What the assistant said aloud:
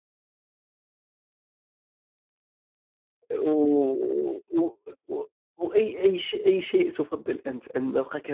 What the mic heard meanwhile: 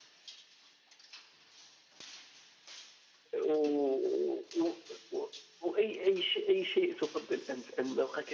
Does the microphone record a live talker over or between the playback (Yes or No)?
No